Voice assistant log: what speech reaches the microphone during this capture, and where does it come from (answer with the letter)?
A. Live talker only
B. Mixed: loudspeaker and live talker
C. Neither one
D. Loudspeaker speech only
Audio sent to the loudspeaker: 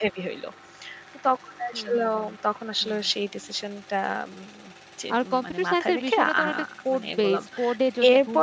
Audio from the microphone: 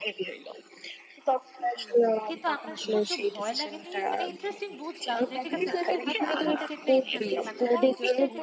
B